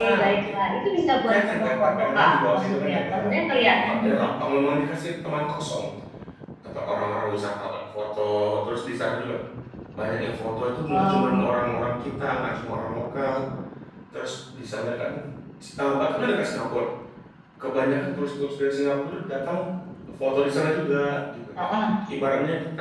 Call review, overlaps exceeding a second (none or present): present